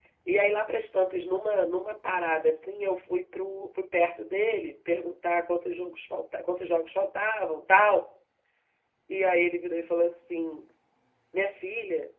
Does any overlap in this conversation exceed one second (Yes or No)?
No